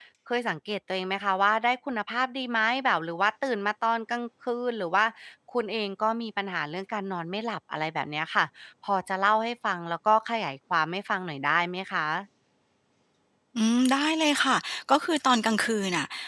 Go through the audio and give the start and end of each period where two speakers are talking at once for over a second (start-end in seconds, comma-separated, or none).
none